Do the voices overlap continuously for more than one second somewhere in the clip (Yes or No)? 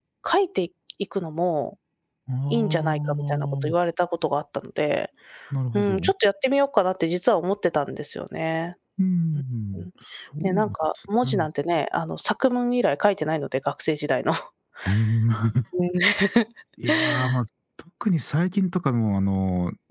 Yes